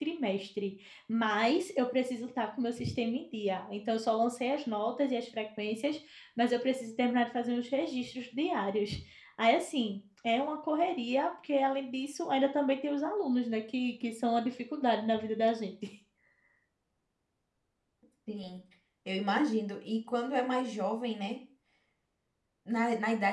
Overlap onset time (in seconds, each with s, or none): none